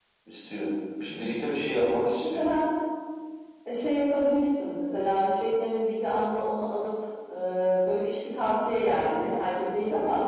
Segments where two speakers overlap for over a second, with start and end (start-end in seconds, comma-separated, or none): none